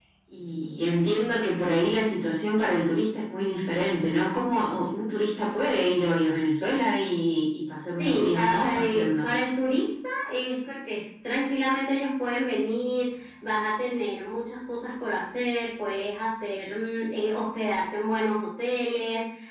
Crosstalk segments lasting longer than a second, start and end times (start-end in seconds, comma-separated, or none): 8.0-9.3